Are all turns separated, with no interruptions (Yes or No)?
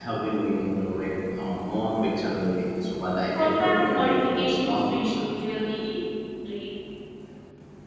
No